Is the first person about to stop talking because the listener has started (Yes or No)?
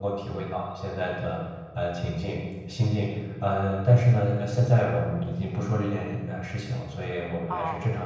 No